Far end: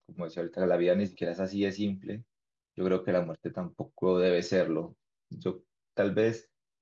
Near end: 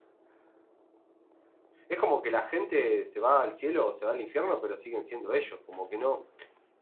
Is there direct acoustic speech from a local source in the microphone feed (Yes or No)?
Yes